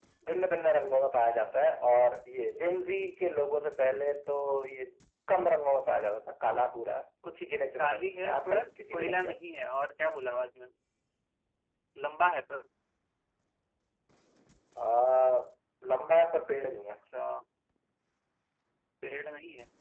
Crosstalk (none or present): present